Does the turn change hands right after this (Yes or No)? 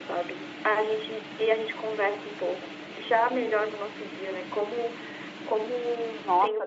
Yes